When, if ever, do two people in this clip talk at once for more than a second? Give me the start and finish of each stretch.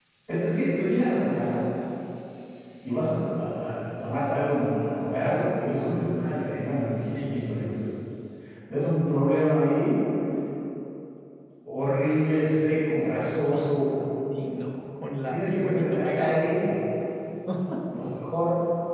15.2-16.4

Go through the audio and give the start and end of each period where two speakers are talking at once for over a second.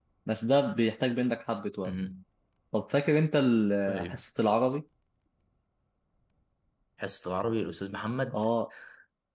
none

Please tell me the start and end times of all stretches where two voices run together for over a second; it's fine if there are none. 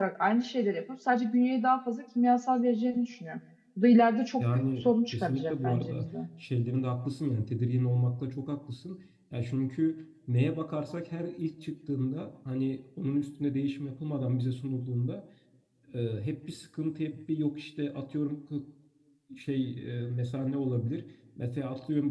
4.4-6.1

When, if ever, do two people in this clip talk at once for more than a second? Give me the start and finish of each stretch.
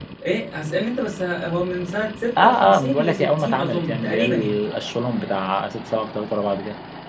2.4-4.5

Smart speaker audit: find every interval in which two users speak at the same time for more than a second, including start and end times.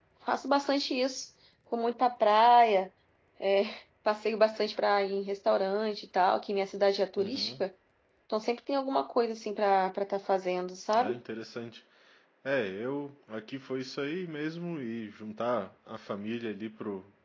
none

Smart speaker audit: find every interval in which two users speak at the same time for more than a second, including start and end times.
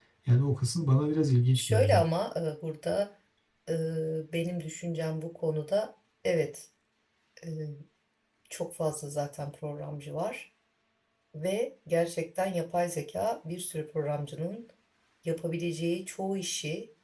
none

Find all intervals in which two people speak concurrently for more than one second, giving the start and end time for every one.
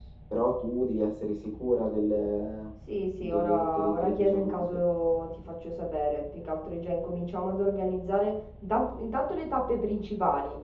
3.2-4.7

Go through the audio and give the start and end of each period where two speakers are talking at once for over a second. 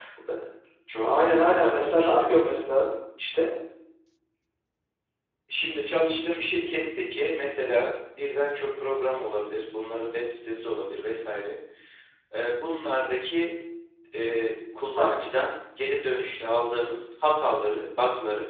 1.0-2.6

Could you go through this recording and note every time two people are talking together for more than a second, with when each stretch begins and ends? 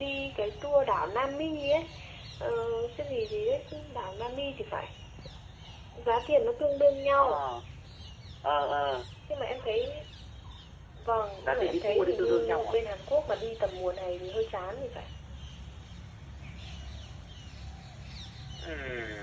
11.4-12.7

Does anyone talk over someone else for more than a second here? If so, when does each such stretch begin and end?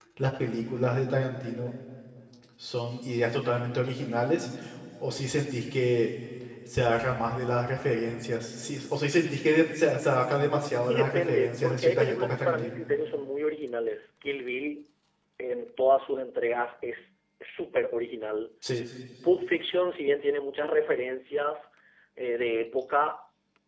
10.9-12.8

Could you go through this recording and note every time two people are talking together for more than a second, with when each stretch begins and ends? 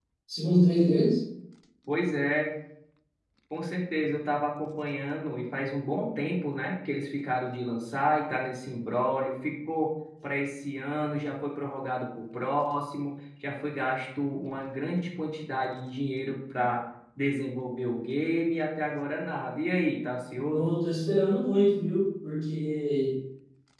none

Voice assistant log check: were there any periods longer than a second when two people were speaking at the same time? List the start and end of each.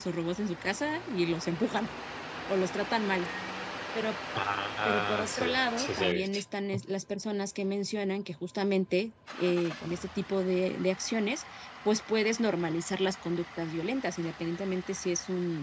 4.8-6.4

